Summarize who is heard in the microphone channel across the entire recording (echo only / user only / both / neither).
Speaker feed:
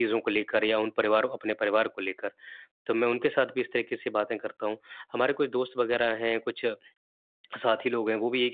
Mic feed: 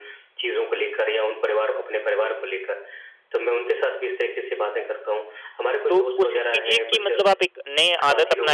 both